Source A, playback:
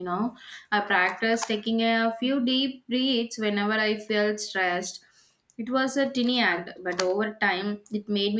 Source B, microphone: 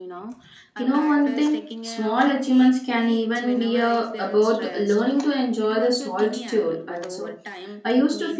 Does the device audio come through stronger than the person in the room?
No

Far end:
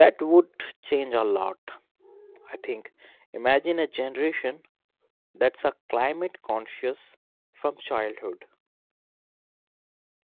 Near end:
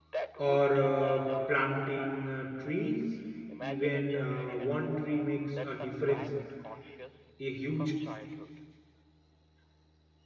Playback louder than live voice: No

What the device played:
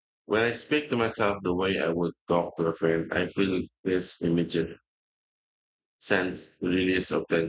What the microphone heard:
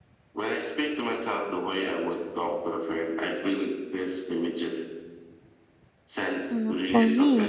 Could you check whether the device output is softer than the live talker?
Yes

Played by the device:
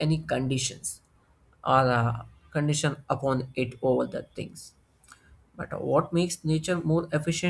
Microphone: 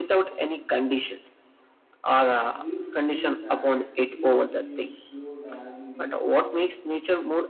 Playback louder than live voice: Yes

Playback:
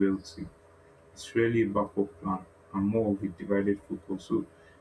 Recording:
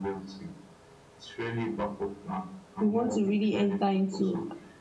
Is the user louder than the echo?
Yes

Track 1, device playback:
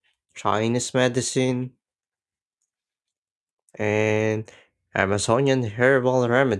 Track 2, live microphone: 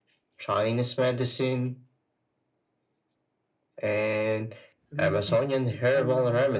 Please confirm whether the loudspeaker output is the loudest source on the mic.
Yes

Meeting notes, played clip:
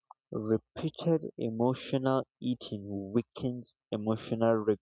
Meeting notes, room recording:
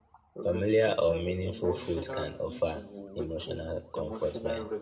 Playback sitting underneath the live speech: Yes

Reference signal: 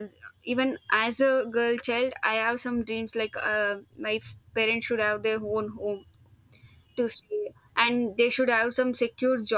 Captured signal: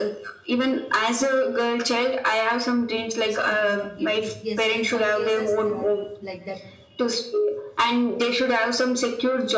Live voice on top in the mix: No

